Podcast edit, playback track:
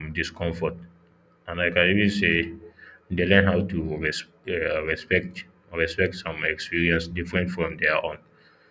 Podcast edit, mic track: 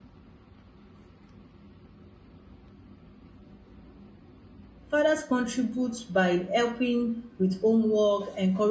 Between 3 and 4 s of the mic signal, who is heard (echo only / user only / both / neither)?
neither